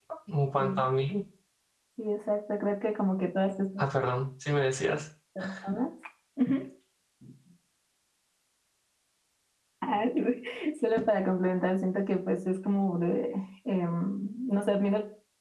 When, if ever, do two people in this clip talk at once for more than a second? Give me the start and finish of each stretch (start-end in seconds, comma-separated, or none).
none